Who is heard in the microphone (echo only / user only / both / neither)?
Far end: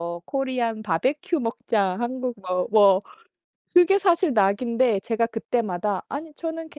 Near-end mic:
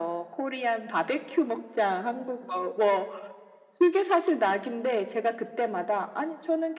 echo only